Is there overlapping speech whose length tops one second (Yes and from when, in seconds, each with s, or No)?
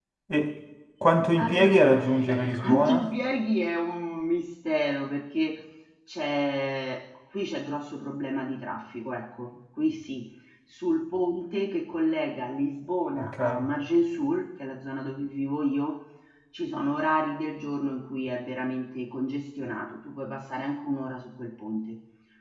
Yes, from 1.4 s